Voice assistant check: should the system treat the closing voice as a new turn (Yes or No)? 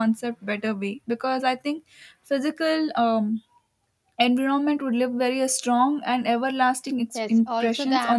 Yes